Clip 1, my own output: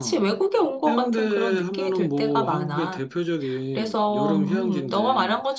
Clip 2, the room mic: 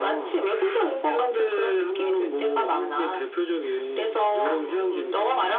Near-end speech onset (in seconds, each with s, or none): none